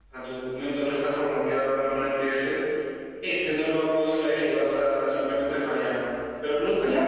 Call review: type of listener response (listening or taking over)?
taking over